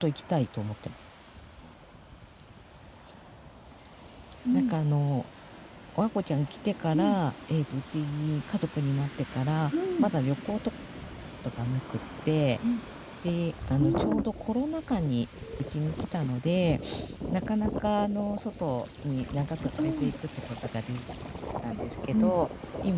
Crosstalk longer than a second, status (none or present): none